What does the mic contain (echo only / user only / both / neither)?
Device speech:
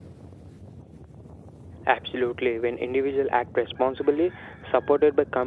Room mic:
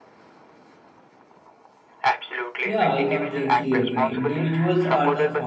both